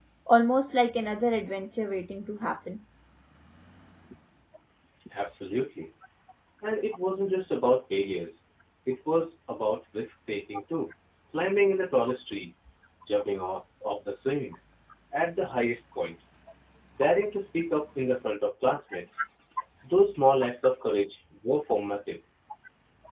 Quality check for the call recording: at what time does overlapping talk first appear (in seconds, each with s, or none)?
none